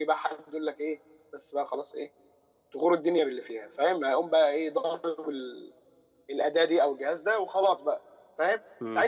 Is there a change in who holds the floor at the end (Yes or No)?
No